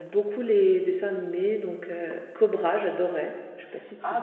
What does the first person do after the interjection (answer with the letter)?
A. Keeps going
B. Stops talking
B